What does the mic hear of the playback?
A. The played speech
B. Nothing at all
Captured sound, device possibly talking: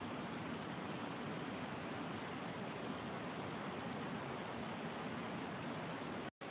B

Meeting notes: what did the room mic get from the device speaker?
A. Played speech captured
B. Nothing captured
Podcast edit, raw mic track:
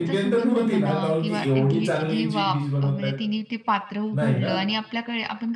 A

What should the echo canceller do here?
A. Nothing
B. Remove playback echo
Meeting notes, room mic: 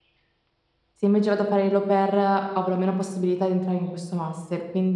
A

